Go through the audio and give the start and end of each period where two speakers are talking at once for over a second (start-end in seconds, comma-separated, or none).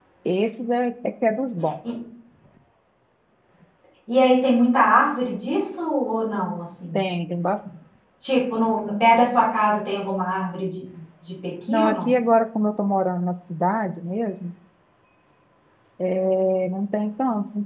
none